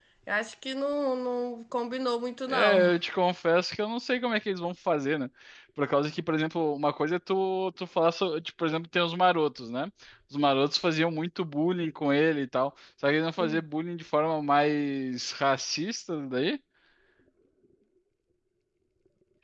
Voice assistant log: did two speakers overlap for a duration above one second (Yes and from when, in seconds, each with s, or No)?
No